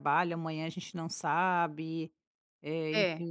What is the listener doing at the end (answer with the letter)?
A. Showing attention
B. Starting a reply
A